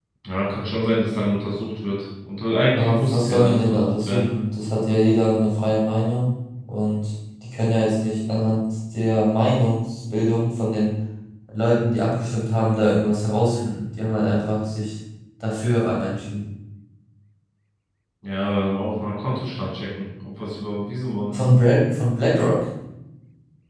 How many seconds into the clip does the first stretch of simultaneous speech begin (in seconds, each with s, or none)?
2.8 s